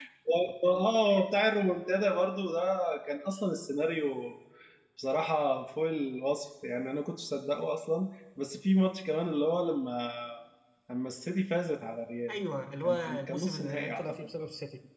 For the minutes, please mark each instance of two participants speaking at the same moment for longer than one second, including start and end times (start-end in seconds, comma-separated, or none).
12.8-14.5